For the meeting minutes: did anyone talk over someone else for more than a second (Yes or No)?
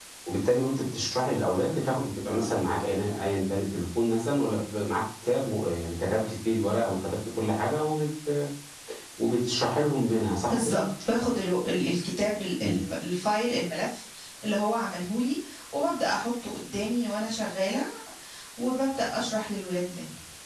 No